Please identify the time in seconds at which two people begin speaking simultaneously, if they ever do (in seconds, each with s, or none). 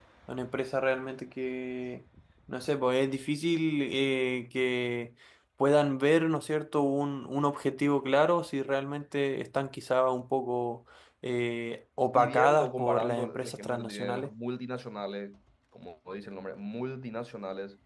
12.1 s